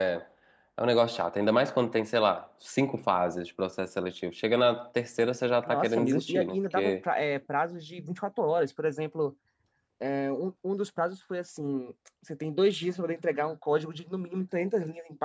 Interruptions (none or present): present